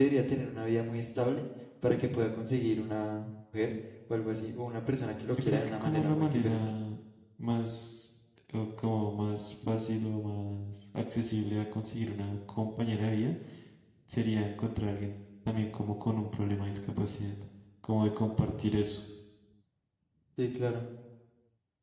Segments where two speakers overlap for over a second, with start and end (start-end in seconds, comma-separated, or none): 5.3-6.7